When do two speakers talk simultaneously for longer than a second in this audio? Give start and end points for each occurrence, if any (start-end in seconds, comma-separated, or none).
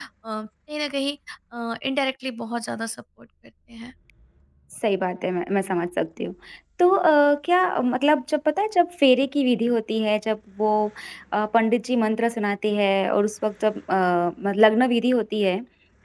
none